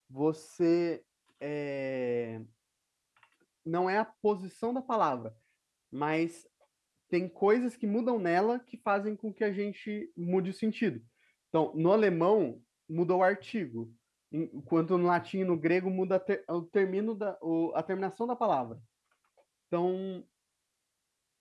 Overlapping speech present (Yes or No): No